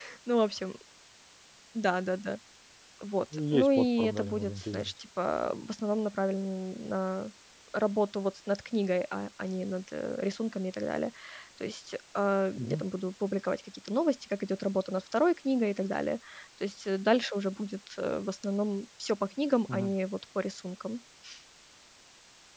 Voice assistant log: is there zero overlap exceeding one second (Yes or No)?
No